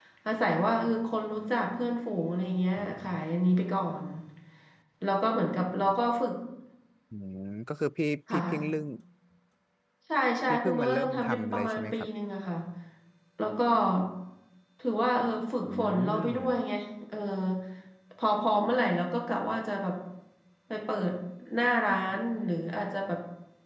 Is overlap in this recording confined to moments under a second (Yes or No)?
No